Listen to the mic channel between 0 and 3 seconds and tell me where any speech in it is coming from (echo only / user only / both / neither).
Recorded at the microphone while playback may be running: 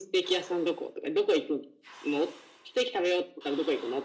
echo only